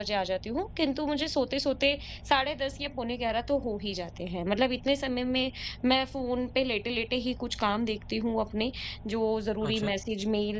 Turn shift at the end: No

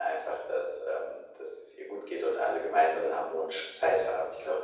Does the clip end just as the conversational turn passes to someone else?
No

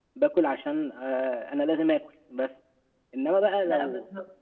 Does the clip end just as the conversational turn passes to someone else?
No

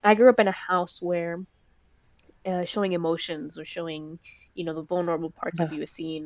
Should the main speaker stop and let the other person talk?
No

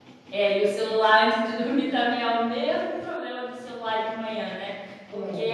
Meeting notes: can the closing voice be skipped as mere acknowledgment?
Yes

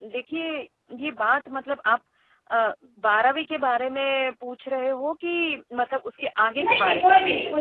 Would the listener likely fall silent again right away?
No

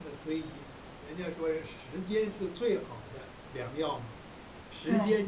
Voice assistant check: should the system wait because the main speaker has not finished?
Yes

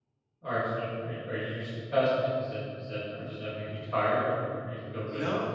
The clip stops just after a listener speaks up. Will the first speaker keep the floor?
No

